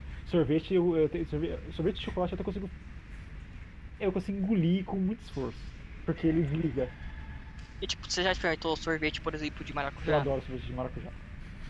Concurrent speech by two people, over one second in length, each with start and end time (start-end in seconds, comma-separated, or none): none